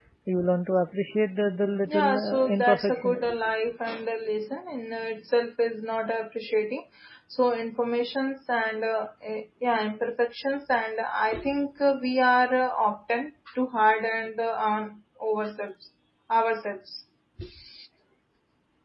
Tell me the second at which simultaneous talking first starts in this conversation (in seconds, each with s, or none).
1.9 s